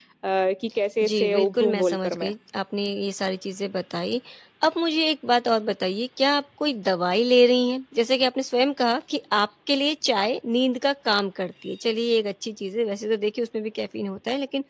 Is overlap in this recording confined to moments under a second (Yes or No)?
No